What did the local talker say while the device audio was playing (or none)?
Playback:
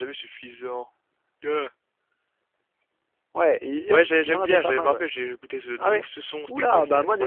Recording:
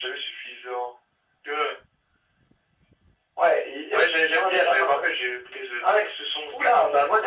none